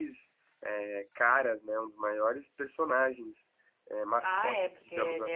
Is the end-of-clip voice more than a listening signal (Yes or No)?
Yes